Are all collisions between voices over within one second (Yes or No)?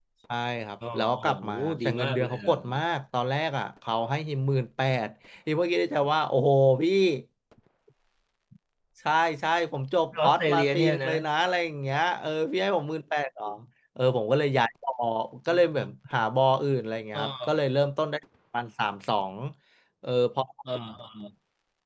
No